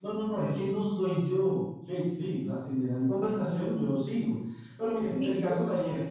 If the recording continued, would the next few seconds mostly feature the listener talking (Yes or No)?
No